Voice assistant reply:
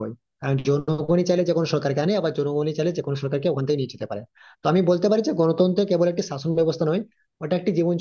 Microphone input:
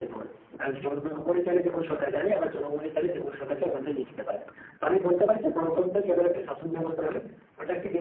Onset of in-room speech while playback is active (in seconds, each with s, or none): none